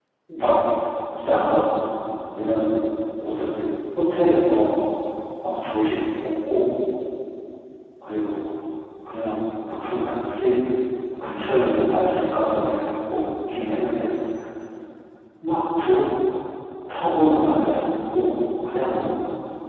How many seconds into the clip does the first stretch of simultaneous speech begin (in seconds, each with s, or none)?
none